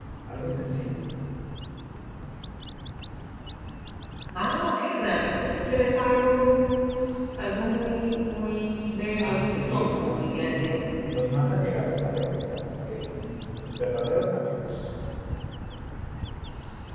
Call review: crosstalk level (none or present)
present